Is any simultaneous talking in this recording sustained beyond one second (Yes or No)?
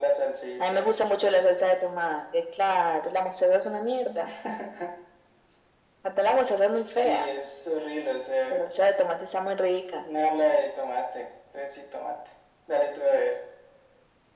No